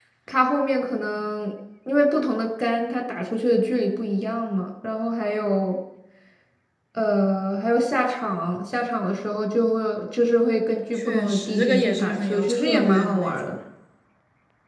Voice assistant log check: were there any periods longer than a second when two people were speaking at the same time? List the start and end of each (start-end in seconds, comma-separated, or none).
11.0-13.5